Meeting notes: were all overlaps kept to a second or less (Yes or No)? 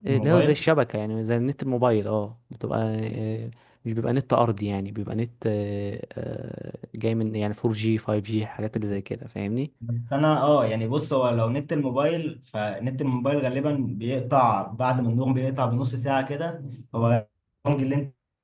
Yes